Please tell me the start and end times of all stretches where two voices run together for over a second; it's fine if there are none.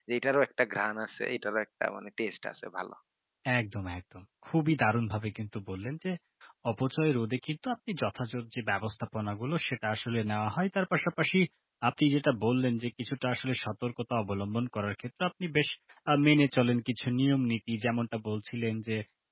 none

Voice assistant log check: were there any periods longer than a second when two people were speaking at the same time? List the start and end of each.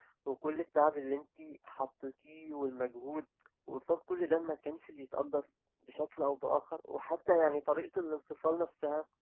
none

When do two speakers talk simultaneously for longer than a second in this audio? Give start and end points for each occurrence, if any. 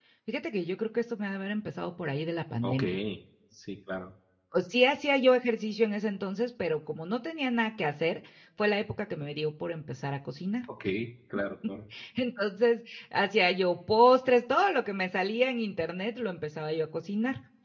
none

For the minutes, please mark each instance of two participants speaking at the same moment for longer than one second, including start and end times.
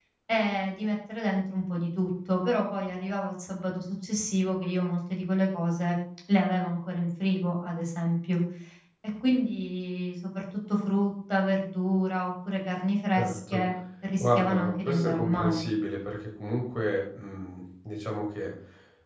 14.2-15.6

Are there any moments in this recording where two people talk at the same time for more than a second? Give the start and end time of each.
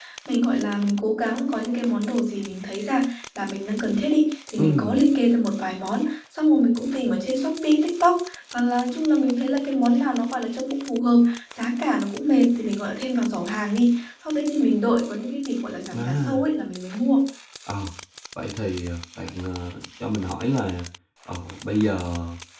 none

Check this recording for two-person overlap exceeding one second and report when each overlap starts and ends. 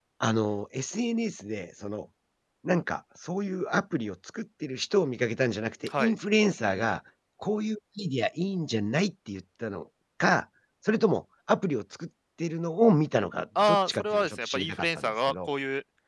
13.6-15.5

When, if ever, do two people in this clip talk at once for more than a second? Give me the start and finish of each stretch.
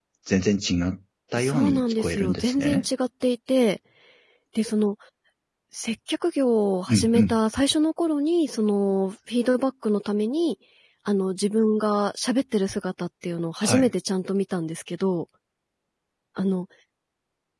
1.4-2.9

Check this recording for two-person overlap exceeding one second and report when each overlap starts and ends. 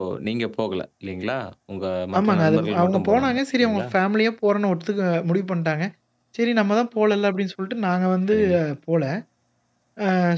2.2-3.8

